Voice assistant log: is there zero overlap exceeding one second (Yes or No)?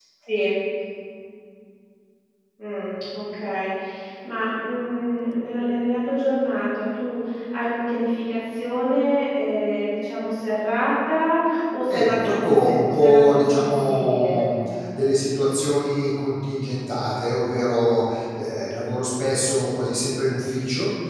No